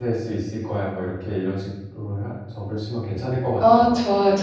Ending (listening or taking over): taking over